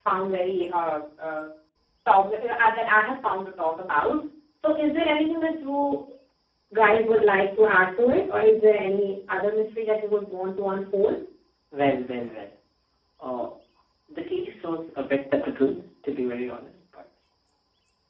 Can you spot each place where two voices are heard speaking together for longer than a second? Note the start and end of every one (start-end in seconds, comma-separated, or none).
none